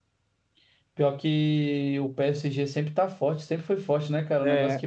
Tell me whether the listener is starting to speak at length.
No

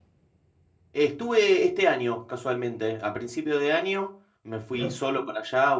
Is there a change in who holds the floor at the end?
No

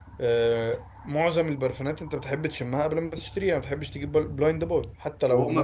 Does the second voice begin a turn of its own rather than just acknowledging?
Yes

